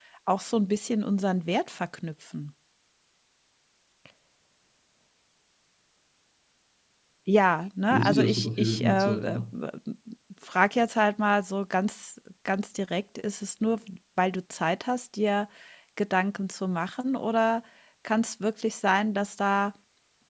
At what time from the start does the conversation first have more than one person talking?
7.9 s

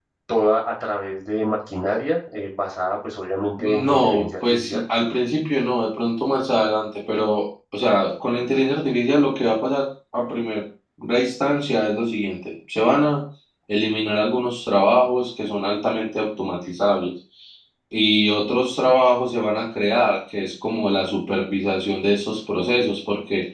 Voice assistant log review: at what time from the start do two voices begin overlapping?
3.6 s

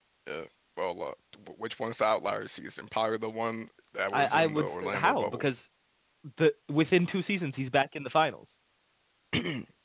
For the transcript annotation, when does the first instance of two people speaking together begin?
4.1 s

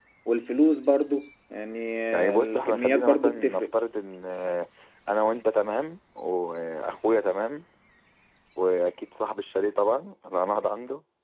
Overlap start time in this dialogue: 2.1 s

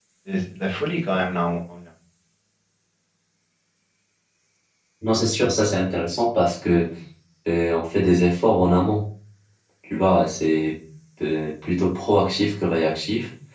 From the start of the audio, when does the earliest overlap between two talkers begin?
none

